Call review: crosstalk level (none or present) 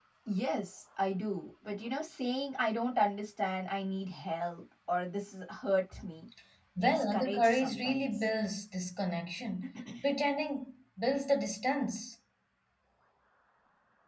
present